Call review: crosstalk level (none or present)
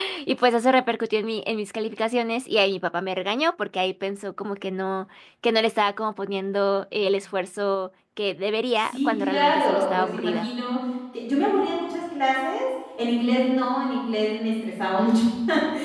present